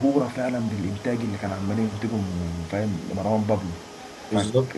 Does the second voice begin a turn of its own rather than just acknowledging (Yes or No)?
No